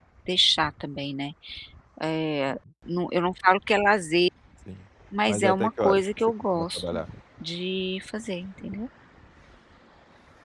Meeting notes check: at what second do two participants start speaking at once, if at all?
5.3 s

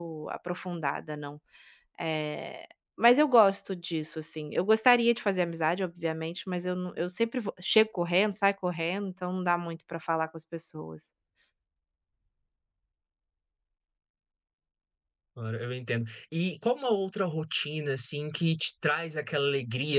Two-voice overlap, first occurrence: none

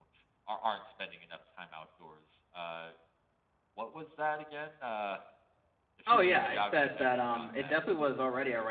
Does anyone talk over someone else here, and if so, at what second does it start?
6.1 s

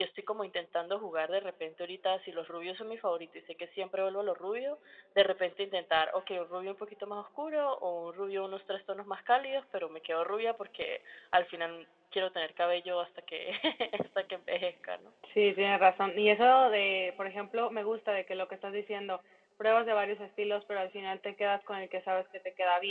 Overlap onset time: none

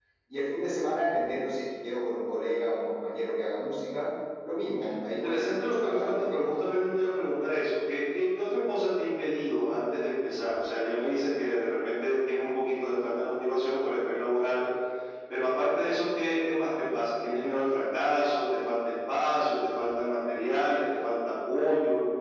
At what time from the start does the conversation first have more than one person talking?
5.1 s

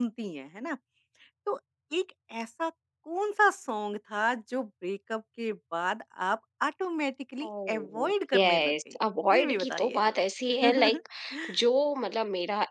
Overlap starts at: 7.4 s

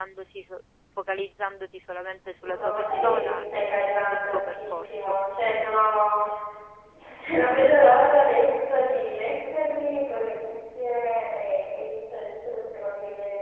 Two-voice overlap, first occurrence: 2.4 s

